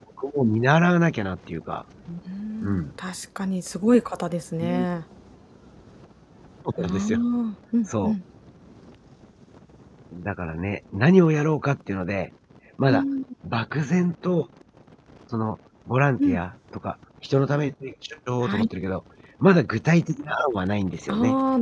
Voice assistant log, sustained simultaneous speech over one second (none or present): none